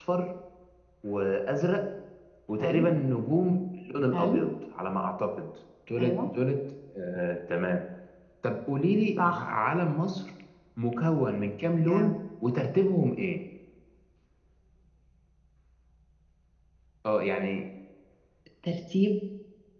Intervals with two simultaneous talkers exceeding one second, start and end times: none

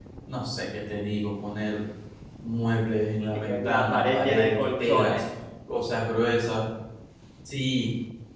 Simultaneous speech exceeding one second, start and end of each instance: 3.3-5.2

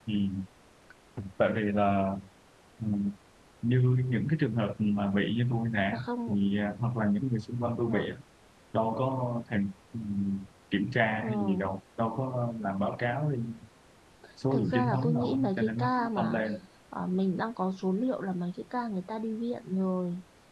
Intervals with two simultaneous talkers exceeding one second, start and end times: 14.5-16.4

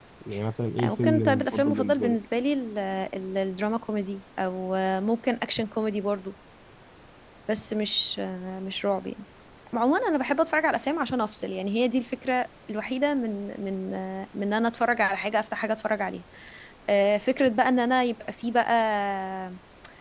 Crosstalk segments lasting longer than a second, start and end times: 0.8-2.1

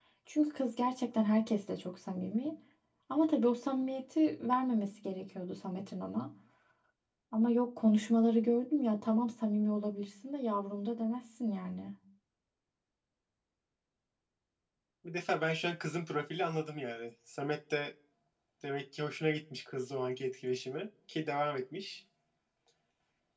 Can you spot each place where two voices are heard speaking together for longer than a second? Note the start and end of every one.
none

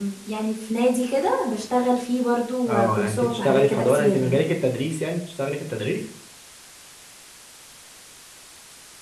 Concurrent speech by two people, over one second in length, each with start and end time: 2.7-4.4

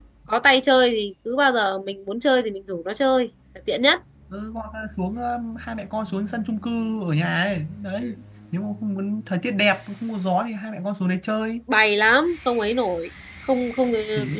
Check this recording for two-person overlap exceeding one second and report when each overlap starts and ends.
none

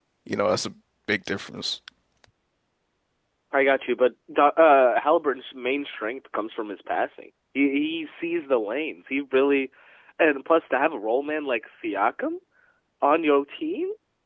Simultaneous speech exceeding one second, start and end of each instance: none

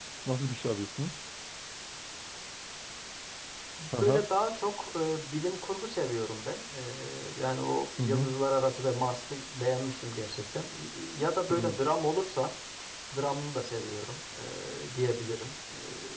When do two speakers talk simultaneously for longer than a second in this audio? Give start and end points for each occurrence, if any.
none

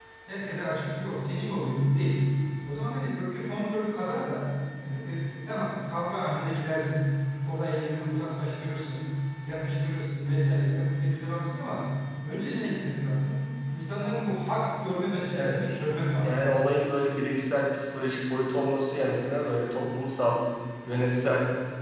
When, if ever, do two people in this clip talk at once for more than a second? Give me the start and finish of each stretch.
none

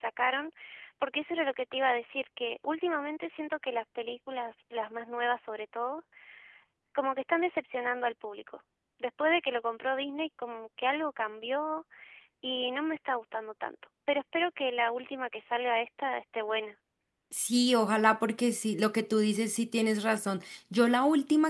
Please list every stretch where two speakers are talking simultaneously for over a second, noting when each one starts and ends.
none

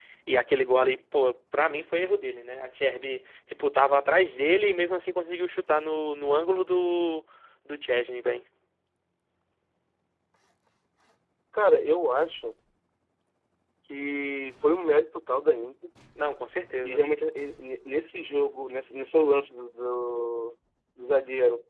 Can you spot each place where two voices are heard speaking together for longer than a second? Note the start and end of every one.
none

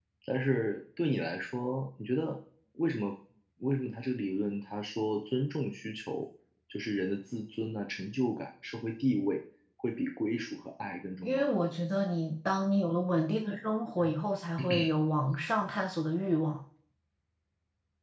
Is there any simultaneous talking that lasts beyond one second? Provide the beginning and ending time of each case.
none

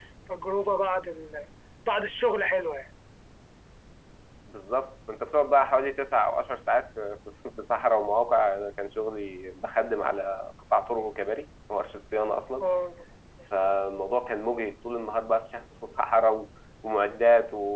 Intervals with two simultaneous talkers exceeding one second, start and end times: none

